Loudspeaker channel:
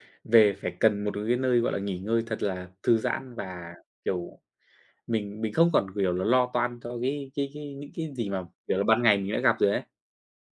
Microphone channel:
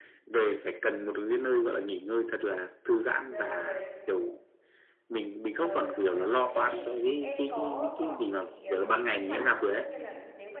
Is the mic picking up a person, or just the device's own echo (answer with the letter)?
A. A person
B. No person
A